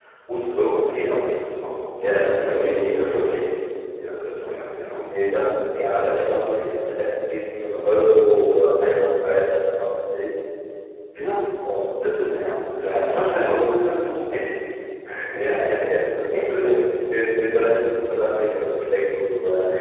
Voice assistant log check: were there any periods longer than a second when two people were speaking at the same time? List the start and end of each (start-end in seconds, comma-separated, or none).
2.0-3.4